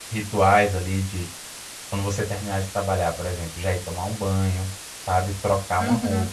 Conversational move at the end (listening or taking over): listening